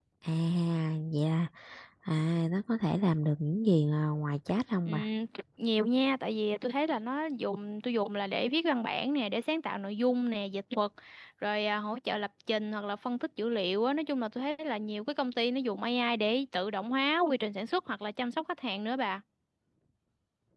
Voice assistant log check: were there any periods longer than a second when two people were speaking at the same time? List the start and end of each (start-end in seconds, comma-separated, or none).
none